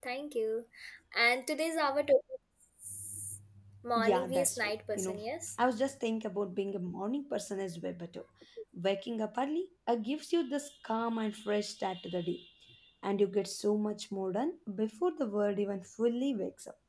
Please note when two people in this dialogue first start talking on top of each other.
4.0 s

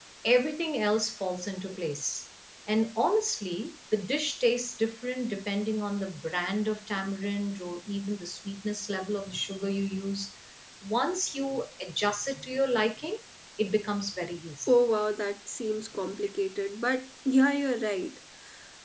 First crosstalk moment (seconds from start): none

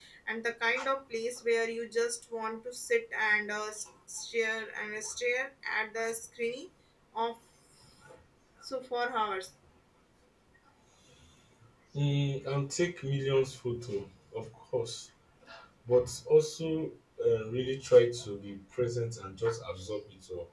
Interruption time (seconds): none

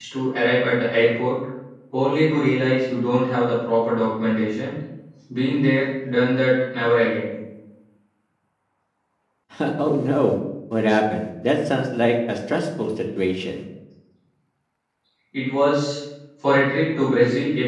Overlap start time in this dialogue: none

